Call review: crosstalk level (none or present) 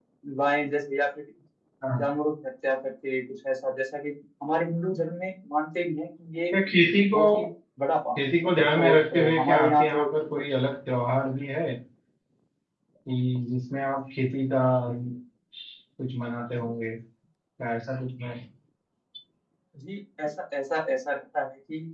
present